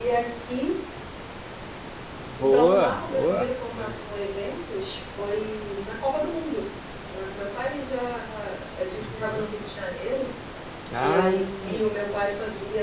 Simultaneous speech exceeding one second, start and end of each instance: 2.4-4.1

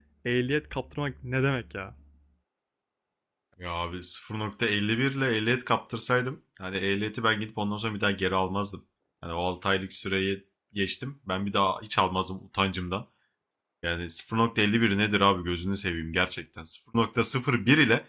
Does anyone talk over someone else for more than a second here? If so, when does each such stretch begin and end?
none

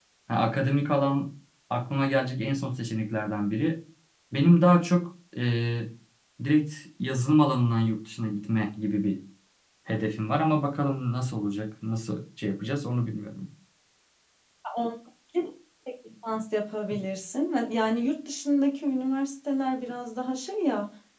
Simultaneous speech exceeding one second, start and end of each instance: none

